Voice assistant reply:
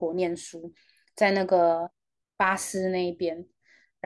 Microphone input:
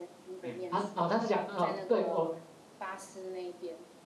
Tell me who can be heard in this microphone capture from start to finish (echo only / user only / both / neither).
both